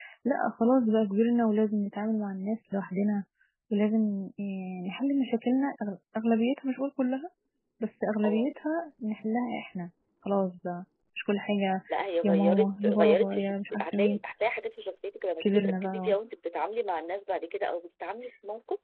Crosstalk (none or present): present